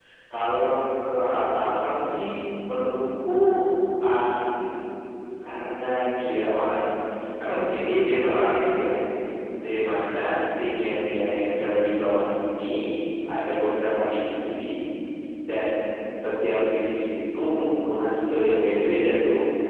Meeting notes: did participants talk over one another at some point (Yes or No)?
No